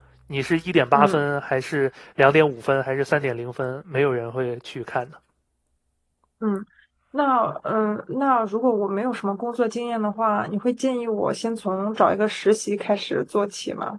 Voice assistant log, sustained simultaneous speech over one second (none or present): none